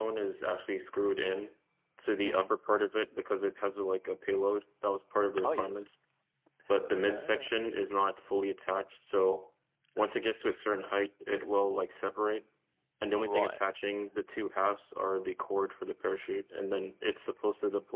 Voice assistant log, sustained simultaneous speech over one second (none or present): none